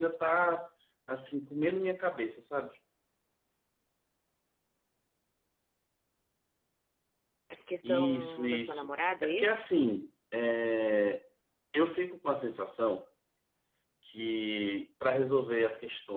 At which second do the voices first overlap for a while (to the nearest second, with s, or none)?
8 s